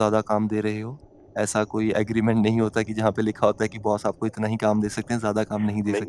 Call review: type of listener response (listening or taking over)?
taking over